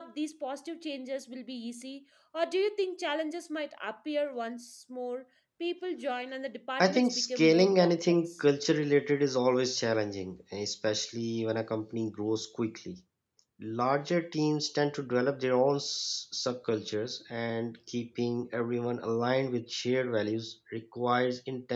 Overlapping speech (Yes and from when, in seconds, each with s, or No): Yes, from 6.8 s